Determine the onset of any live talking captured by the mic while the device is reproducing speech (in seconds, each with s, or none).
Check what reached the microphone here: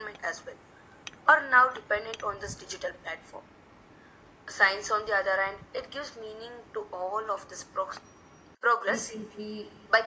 8.9 s